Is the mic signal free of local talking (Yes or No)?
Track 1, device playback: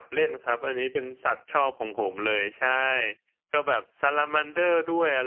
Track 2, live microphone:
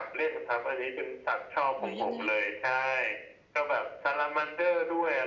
No